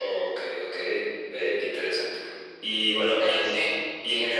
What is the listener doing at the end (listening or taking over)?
listening